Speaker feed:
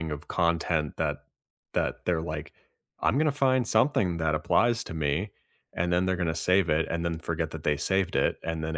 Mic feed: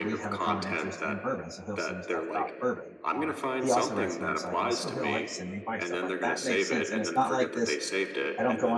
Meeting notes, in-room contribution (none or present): present